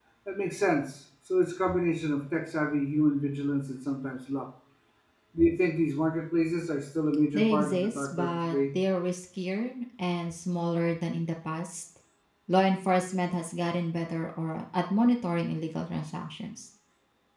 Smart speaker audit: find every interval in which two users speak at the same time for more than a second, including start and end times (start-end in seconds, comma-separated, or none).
7.3-8.6